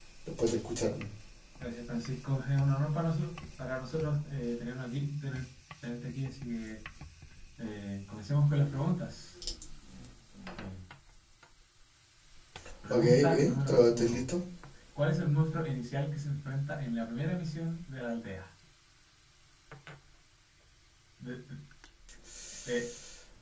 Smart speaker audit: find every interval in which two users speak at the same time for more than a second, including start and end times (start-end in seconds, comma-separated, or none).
12.9-14.2